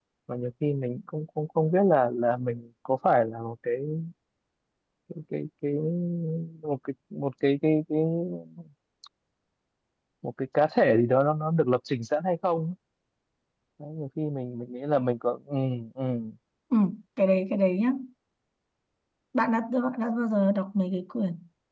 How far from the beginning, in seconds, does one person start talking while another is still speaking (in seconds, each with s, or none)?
none